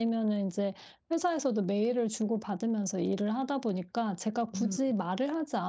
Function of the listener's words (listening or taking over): listening